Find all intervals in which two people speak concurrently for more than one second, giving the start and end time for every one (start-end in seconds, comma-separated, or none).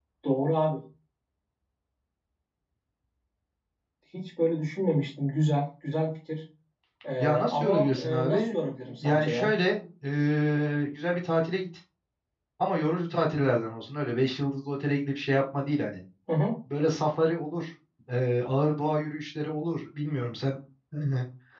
7.2-8.5